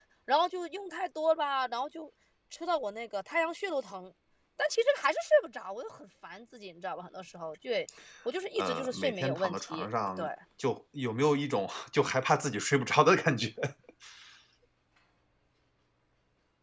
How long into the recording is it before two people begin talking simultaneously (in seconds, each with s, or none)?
8.6 s